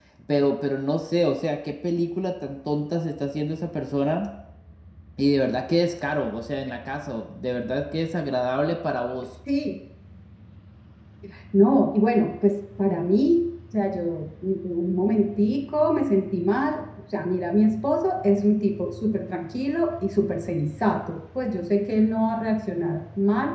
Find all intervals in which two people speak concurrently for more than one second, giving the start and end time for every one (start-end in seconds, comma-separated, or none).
none